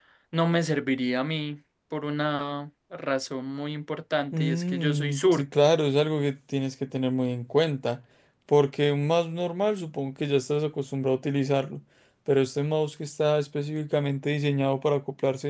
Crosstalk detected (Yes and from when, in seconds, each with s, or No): Yes, from 4.3 s